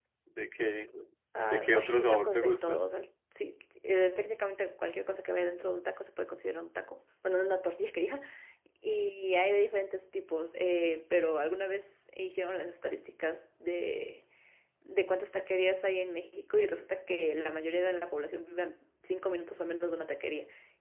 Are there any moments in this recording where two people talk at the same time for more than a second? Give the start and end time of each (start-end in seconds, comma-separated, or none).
1.5-2.8